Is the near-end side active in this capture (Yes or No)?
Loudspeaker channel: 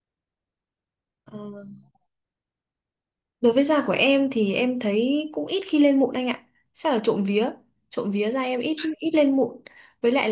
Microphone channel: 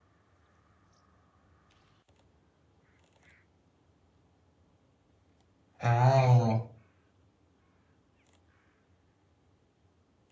Yes